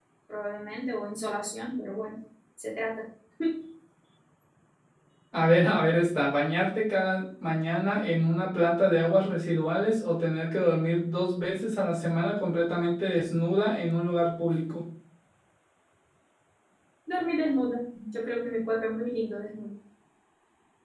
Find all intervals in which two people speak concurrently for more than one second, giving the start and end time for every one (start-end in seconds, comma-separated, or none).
none